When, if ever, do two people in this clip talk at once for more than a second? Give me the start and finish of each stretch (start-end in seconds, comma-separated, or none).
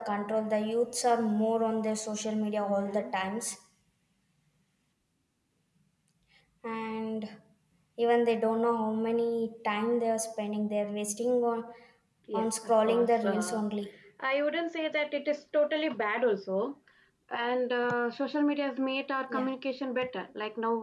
12.3-13.6